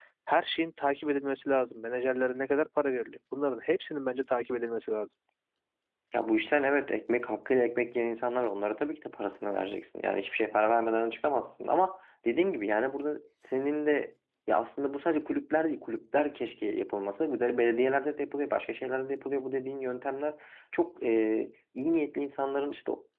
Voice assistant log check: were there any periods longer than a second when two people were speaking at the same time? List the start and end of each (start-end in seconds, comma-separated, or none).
none